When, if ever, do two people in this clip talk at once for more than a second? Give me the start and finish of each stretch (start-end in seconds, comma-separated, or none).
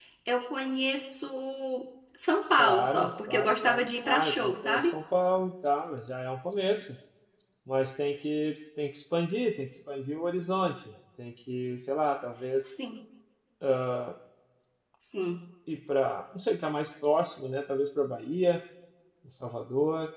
2.6-4.9